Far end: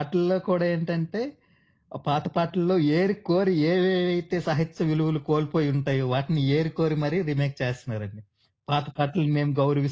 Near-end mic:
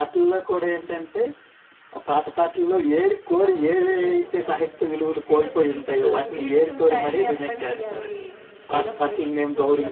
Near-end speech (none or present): present